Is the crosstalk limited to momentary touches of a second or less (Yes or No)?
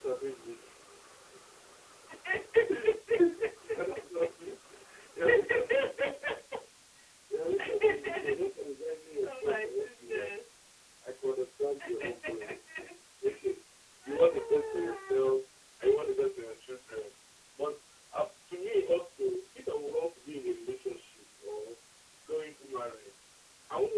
No